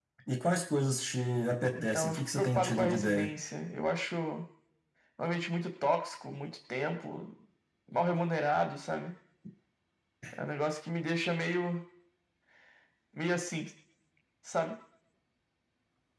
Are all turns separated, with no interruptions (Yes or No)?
No